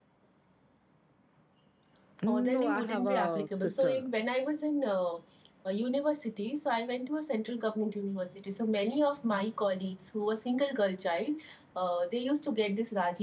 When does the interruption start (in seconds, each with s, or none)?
2.3 s